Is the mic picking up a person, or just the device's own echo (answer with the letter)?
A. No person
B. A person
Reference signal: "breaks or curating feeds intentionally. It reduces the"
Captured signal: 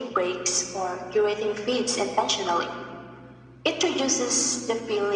A